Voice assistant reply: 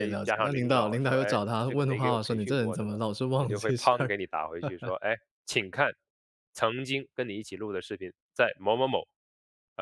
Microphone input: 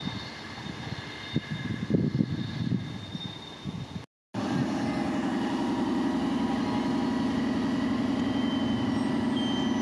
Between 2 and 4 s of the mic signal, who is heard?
neither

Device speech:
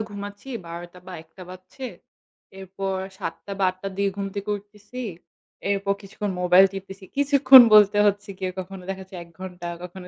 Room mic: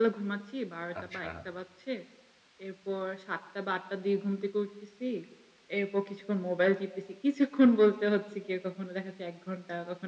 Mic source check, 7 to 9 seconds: echo only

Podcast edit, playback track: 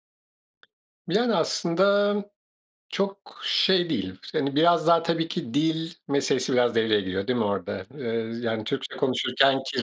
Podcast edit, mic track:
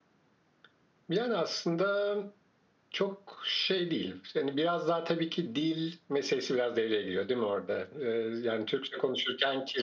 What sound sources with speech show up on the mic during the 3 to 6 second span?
echo only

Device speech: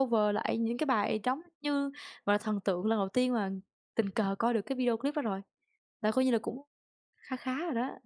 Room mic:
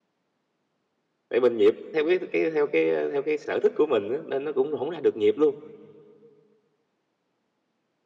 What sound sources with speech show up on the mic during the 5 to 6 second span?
user only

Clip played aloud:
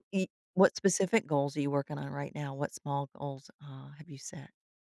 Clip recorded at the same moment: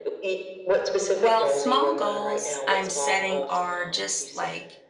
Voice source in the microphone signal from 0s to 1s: echo only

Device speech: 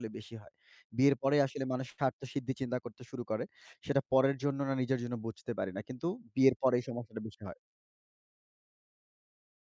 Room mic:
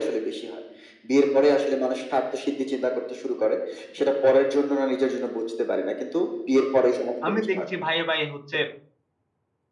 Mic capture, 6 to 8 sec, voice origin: both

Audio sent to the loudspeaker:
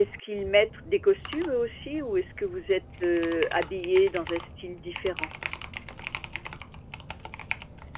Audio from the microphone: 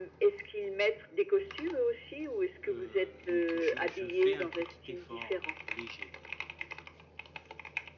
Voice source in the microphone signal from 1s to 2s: echo only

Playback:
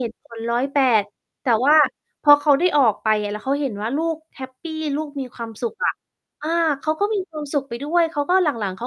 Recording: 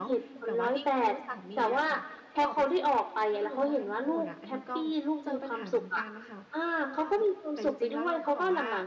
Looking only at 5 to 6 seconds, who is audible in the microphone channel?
both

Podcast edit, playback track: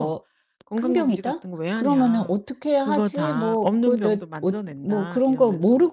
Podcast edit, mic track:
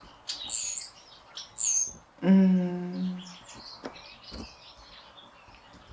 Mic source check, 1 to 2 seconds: neither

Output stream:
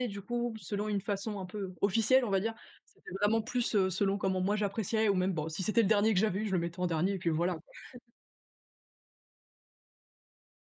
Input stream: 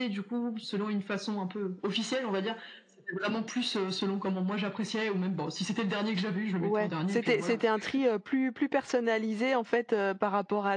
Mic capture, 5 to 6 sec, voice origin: echo only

